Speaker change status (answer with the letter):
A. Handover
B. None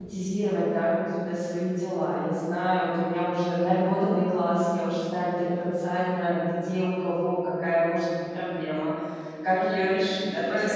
A